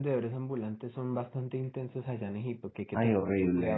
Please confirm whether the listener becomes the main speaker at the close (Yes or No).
Yes